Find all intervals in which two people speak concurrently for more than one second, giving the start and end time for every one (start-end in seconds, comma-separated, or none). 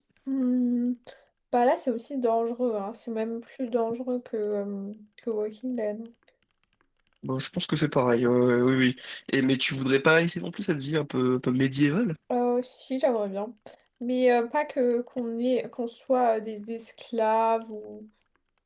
none